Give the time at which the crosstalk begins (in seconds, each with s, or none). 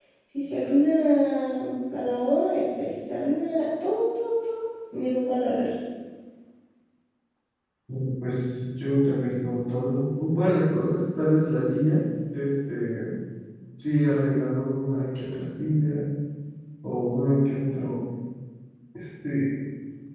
none